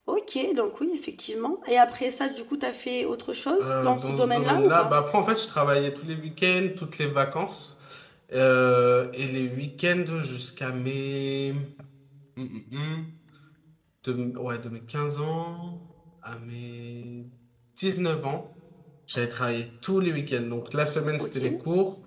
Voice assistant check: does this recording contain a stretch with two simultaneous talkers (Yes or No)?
Yes